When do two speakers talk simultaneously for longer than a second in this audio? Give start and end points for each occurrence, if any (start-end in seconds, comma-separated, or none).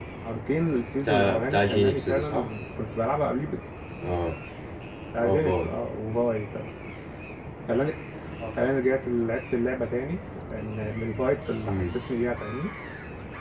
1.0-2.5